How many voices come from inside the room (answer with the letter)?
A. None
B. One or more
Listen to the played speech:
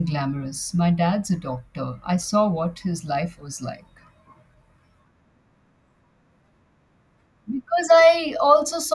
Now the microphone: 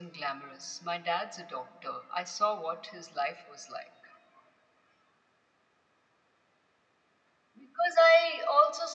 A